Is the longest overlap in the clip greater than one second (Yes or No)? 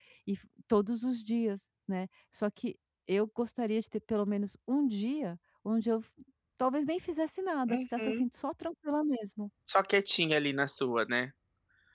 No